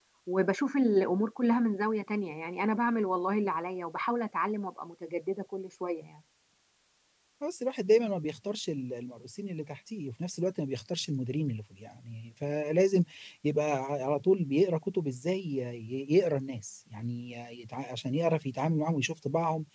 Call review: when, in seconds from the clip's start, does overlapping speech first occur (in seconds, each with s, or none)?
none